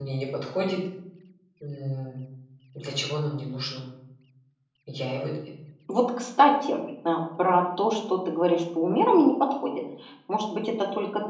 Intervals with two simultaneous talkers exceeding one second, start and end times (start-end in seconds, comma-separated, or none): none